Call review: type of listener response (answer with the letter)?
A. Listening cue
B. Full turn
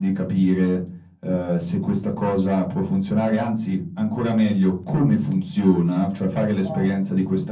A